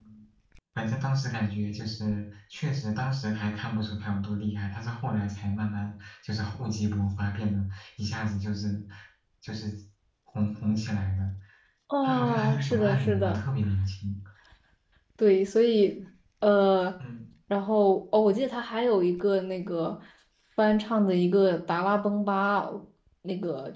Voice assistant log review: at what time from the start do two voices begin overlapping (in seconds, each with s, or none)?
12.0 s